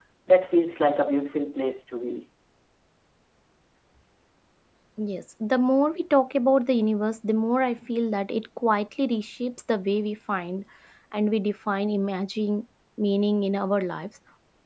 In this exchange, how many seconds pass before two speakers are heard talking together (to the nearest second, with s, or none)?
none